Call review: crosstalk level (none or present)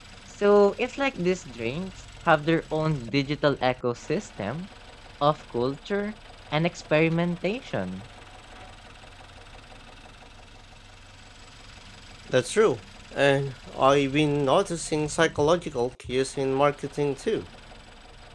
none